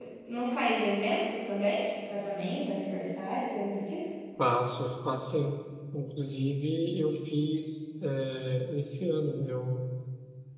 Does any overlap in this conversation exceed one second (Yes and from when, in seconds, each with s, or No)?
No